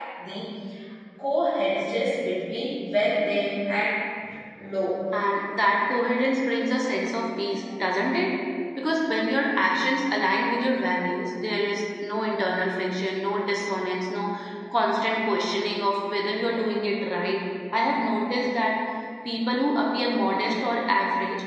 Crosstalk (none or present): none